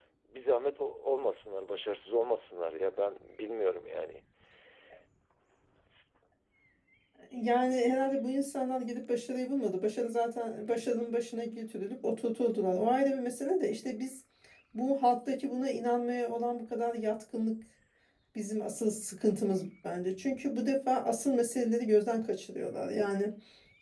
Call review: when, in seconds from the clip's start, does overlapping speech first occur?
none

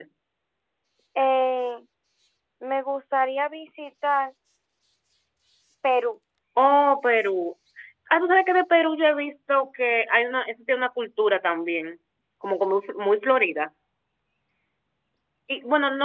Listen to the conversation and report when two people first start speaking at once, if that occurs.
none

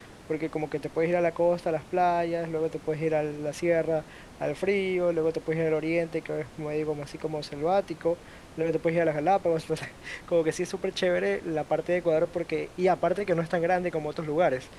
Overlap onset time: none

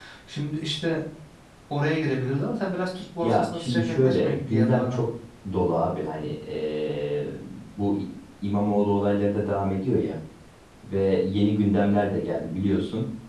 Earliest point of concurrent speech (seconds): 3.2 s

